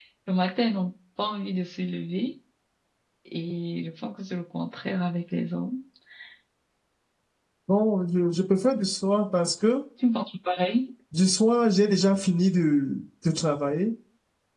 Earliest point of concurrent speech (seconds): none

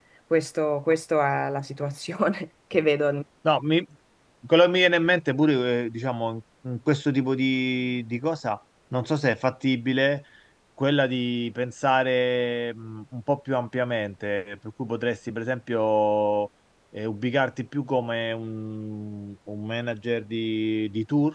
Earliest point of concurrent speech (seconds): none

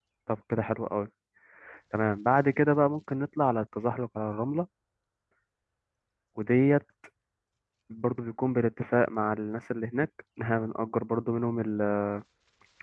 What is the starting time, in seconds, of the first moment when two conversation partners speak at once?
none

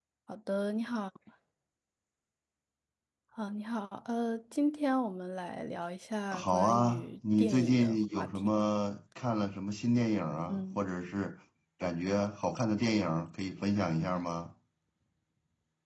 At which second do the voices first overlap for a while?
6.3 s

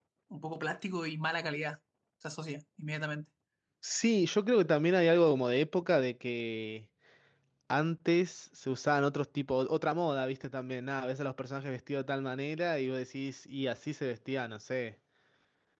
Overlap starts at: none

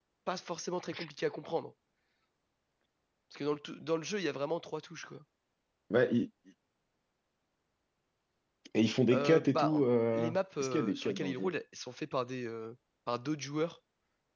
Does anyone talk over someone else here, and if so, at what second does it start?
9.1 s

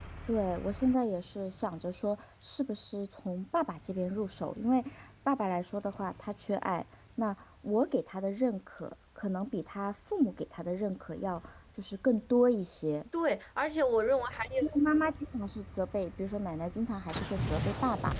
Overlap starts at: none

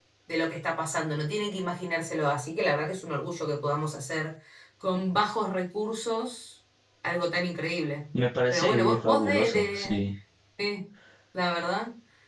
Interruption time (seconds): 8.5 s

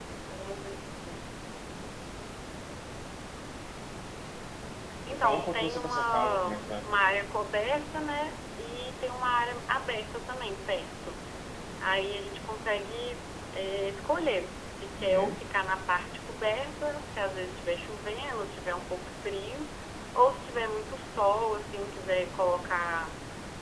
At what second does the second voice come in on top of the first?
5.1 s

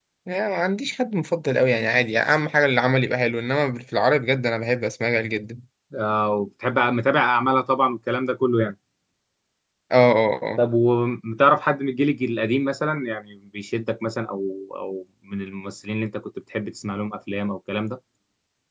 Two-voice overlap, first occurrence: none

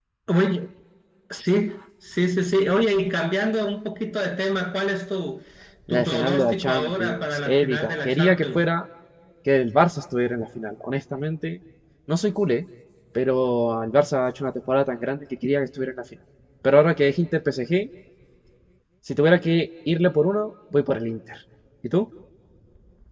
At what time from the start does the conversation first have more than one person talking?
5.9 s

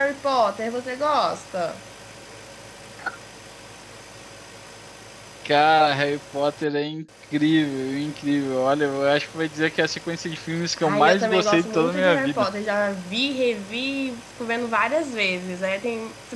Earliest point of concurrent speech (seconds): 10.8 s

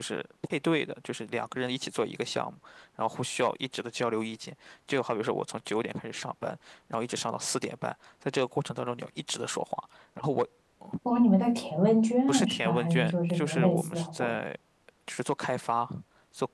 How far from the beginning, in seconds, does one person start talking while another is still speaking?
12.3 s

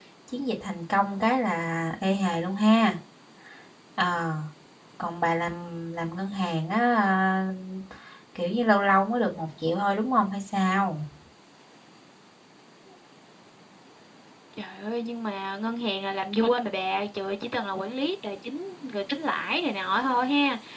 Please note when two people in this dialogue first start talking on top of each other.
none

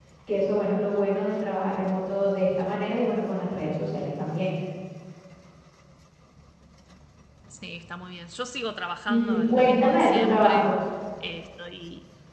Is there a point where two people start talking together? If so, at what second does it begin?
9.1 s

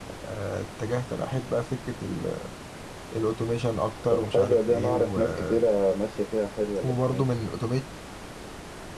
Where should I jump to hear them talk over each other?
4.1 s

